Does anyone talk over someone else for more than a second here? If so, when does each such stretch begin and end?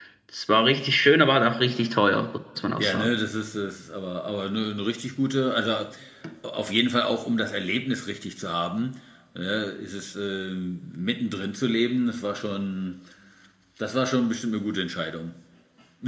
none

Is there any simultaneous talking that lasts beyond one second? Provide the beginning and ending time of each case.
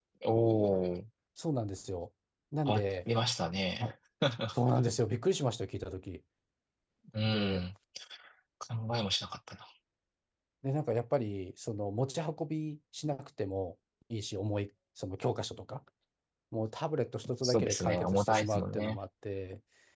17.4-19.0

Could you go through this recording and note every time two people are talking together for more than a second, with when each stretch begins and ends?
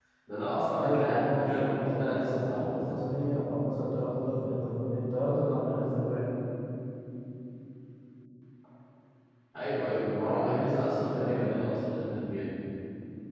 0.8-3.0, 10.2-11.8

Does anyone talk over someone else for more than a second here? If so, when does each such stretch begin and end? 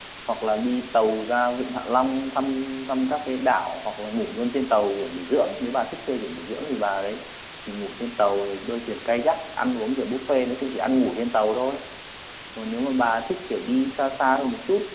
none

